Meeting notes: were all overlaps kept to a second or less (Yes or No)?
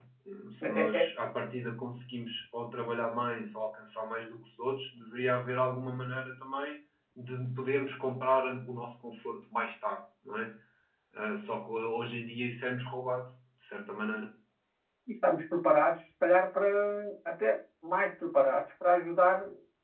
Yes